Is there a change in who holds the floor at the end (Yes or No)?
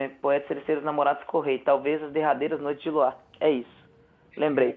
No